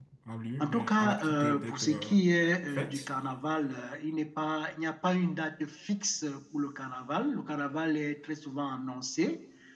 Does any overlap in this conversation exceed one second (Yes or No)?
Yes